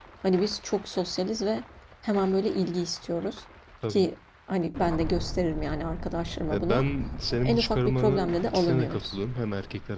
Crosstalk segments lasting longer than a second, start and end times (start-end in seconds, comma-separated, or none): 7.4-9.2